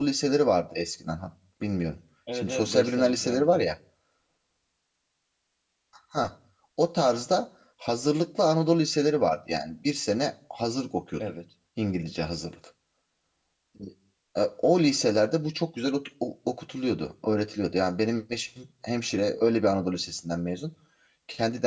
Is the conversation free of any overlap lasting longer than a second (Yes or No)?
No